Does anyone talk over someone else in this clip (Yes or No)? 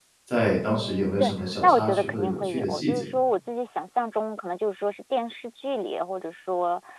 Yes